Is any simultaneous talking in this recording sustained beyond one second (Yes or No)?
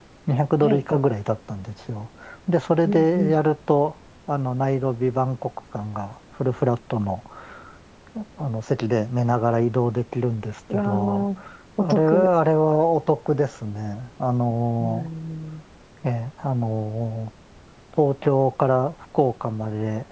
No